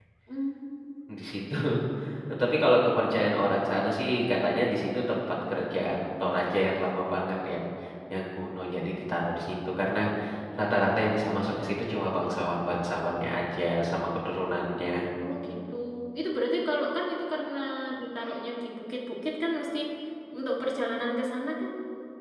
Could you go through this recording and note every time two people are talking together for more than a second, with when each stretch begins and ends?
none

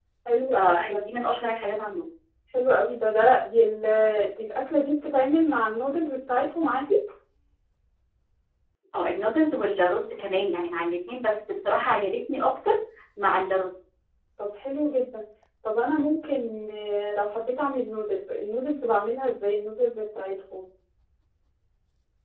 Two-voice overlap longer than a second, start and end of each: none

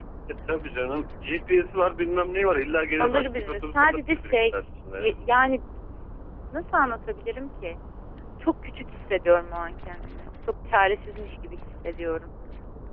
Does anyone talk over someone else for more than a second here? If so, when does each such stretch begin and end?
3.0-4.3

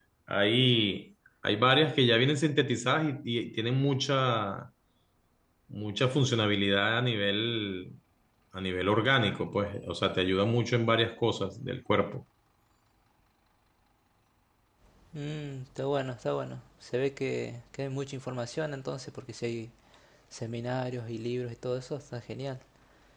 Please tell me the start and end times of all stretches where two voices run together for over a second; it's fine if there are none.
none

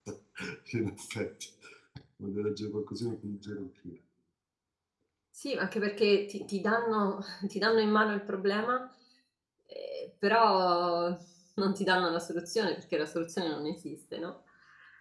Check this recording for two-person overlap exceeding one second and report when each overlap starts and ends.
none

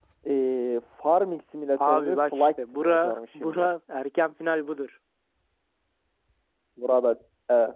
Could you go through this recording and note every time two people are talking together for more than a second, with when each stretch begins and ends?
1.8-3.7

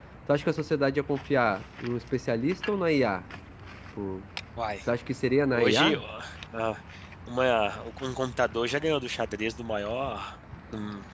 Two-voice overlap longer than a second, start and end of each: none

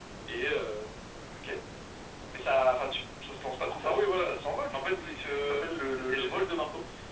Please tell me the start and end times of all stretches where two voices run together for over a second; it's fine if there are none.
4.7-6.5

